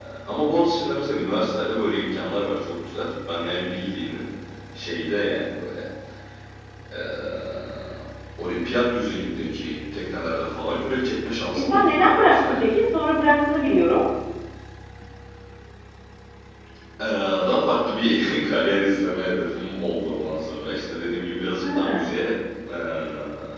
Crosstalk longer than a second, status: present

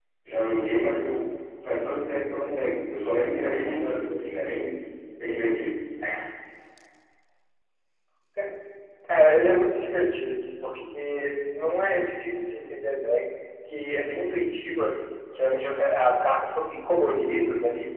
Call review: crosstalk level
none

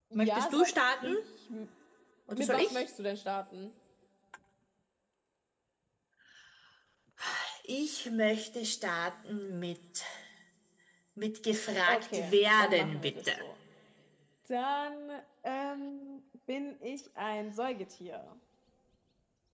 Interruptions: present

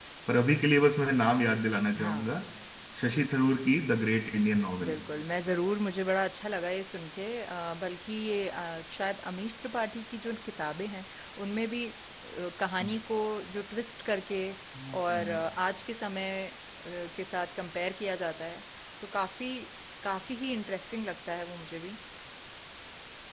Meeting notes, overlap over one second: none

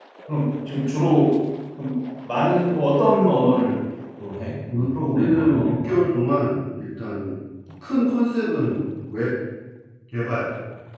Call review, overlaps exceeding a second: present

